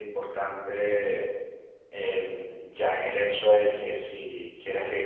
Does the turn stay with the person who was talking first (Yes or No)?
Yes